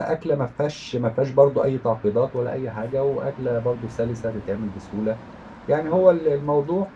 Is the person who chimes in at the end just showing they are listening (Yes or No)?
Yes